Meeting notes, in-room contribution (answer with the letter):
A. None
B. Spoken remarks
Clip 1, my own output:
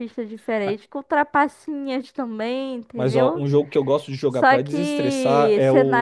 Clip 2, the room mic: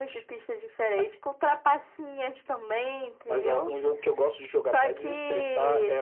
A